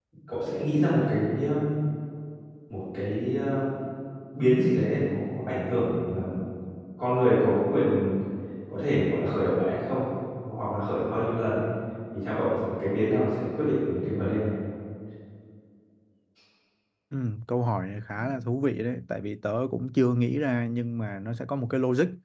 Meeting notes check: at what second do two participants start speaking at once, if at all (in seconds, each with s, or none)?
none